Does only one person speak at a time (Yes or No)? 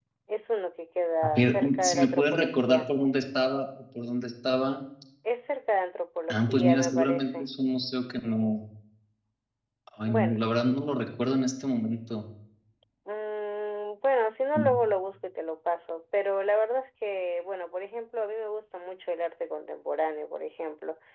No